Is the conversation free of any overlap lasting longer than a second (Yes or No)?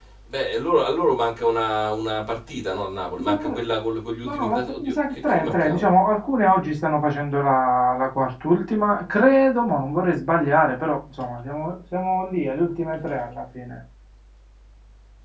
No